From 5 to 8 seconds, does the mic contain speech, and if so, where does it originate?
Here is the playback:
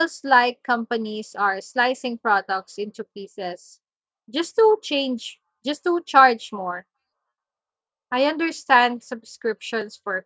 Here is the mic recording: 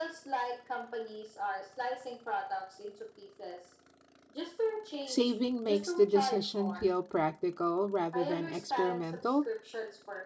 both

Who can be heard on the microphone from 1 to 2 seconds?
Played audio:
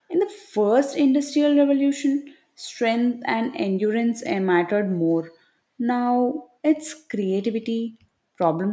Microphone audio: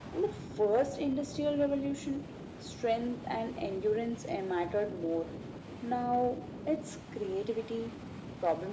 echo only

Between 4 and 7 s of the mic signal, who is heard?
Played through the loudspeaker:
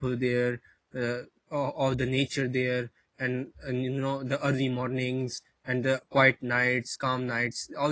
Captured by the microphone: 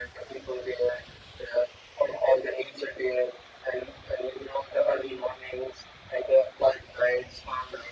echo only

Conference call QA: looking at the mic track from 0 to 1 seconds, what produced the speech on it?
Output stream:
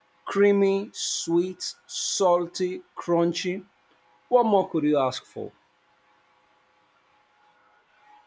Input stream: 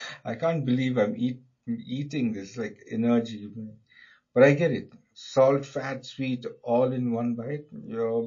user only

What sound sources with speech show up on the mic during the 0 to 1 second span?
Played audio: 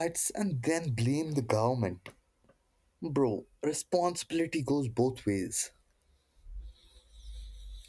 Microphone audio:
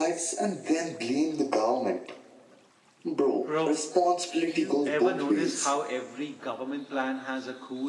echo only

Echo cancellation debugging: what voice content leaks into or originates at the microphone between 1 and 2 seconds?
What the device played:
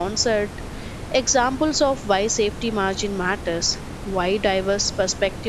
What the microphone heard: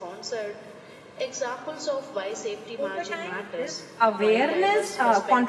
echo only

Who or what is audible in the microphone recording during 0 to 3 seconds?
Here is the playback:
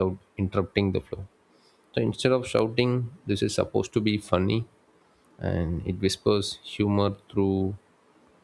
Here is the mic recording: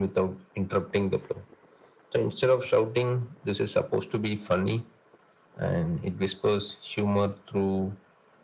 echo only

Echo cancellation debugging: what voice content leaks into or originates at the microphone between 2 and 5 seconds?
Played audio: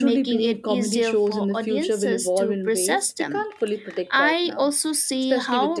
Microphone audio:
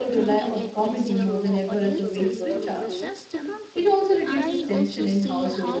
both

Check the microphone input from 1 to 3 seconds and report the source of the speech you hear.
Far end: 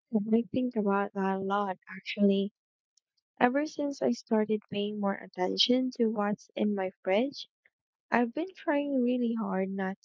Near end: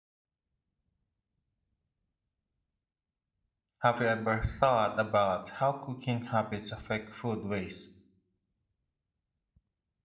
neither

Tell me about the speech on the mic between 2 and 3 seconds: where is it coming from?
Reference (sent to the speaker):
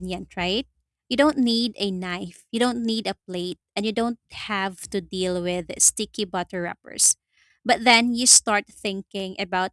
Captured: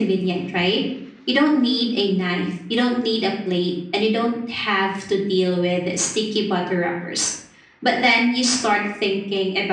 echo only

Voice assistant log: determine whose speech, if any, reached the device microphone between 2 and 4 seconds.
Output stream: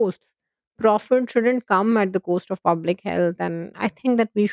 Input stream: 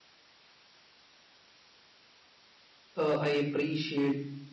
user only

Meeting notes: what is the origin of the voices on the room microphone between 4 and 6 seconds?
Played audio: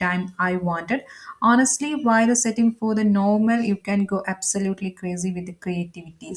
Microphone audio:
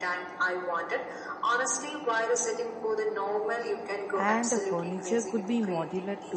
both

